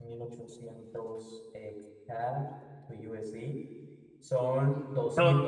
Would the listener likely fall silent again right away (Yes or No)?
Yes